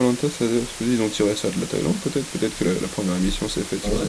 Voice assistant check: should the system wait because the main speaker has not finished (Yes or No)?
No